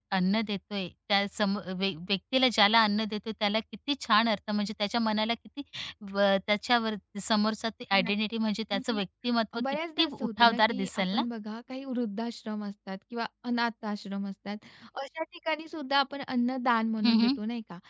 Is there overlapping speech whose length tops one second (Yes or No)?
Yes